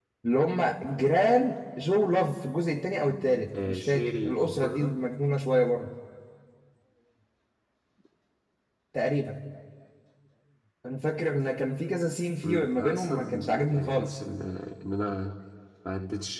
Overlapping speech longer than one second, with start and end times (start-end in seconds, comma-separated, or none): 3.7-4.9, 12.4-14.2